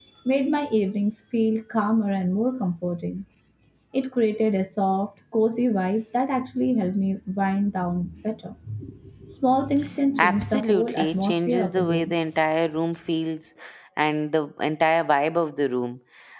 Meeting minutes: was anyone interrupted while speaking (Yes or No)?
Yes